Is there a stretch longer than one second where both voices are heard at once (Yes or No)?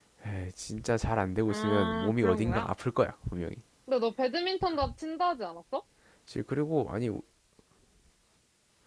Yes